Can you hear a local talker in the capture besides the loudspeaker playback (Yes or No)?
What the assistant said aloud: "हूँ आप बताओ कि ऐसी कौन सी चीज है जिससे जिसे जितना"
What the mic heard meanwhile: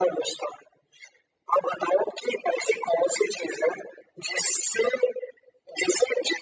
No